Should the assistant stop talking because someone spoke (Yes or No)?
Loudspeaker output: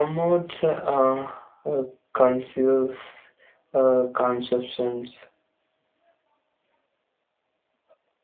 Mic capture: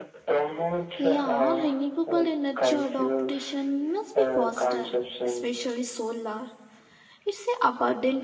Yes